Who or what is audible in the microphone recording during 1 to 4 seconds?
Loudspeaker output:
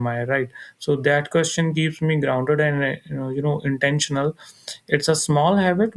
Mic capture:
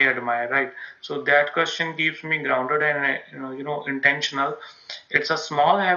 echo only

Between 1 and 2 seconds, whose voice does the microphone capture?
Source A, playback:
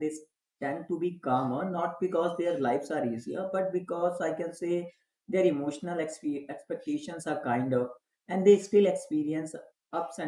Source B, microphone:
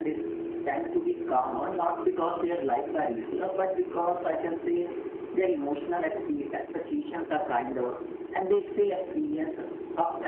echo only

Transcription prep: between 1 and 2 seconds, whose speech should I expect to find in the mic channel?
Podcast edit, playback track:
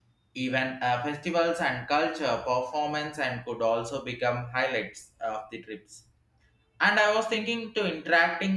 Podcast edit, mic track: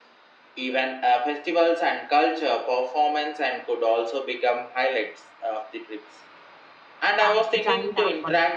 echo only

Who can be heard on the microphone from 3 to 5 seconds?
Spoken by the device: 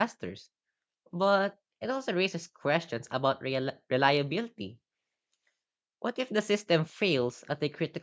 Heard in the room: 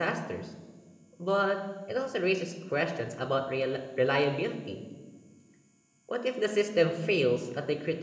echo only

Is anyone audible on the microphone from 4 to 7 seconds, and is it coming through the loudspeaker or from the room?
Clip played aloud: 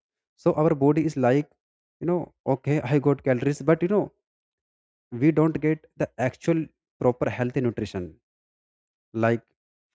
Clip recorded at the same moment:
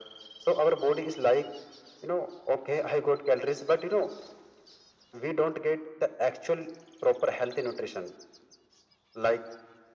echo only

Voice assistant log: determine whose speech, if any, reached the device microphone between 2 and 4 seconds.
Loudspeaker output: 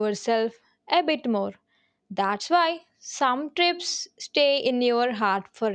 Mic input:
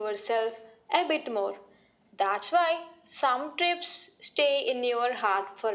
echo only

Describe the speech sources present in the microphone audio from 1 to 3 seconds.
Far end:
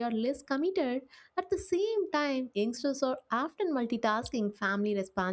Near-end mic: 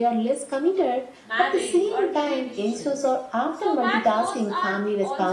both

